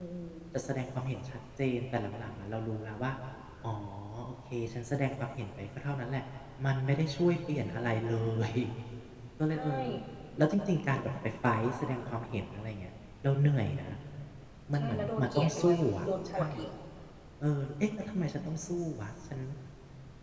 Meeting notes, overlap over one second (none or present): present